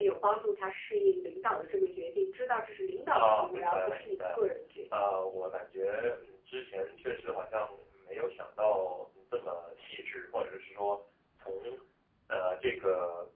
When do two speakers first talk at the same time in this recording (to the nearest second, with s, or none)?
3 s